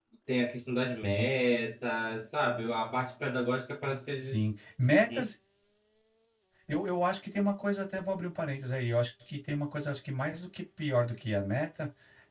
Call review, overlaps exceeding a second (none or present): none